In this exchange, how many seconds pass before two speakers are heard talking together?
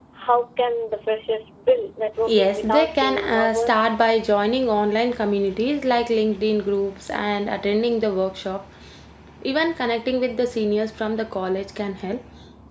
2 s

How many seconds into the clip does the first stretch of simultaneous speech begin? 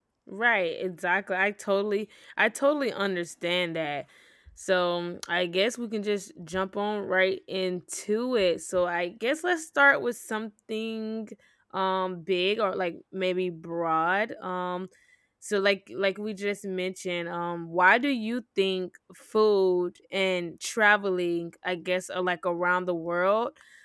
none

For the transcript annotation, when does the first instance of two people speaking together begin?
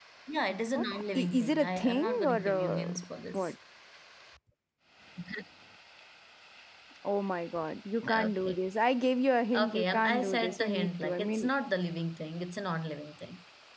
1 s

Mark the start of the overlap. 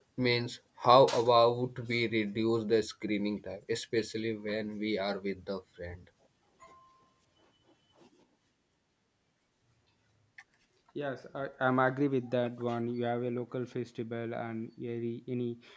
none

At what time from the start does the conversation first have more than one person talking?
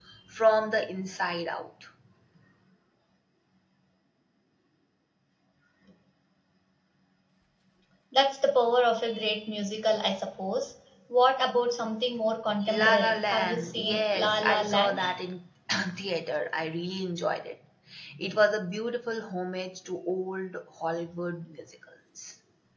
13 s

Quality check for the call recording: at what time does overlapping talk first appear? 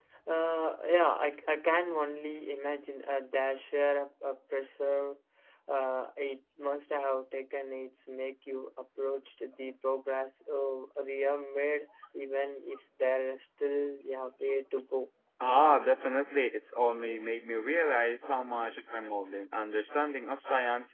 none

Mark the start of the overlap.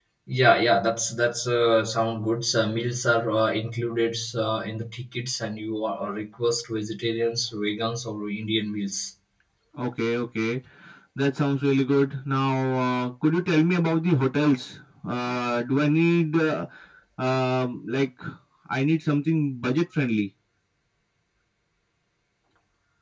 none

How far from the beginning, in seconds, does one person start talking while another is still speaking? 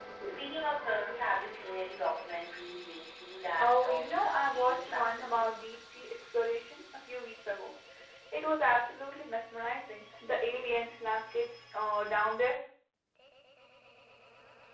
4 s

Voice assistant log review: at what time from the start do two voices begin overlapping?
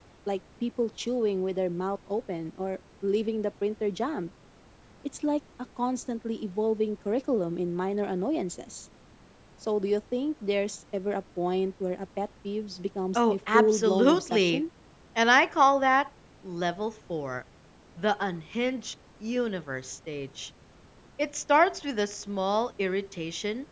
13 s

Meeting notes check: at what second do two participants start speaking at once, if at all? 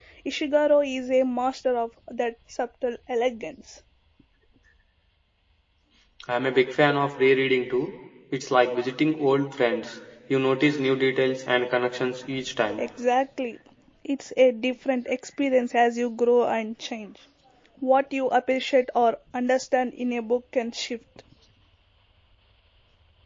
none

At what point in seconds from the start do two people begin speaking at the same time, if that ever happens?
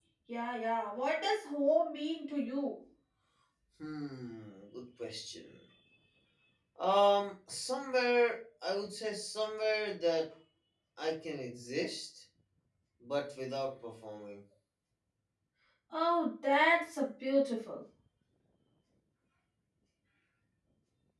none

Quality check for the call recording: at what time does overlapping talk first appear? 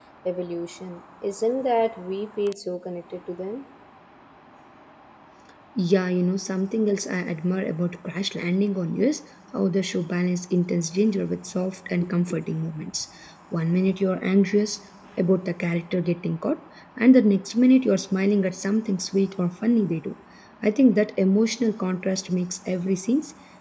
none

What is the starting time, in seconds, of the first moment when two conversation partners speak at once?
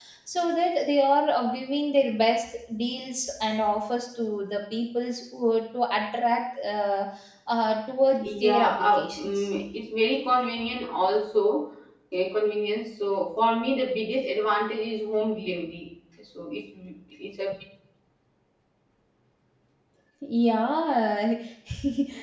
8 s

